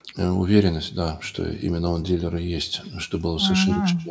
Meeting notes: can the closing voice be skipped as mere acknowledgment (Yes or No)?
No